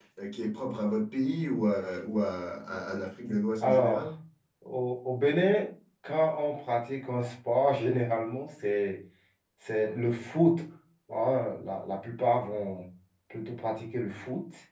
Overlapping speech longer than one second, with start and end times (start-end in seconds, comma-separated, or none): none